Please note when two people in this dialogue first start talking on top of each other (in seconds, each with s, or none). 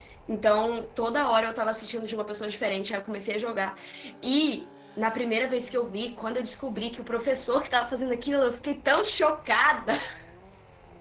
none